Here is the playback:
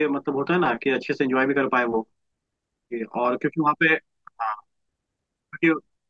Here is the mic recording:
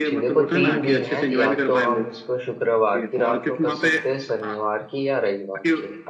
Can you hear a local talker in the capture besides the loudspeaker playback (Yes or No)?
Yes